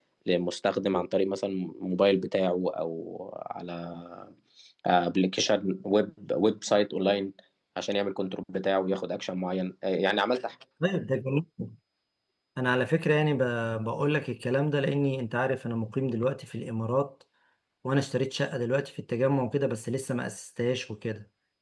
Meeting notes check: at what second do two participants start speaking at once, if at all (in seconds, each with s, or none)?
none